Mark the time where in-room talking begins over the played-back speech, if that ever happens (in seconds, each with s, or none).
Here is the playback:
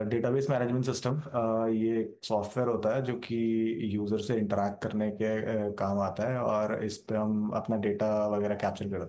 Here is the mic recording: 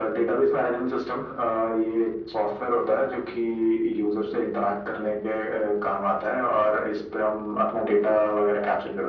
none